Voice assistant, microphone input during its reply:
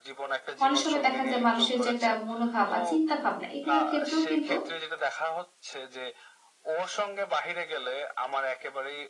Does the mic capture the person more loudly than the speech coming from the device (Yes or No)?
Yes